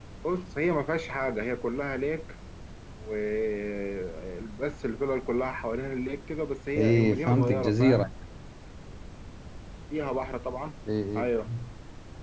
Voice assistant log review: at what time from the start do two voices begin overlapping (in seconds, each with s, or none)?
6.8 s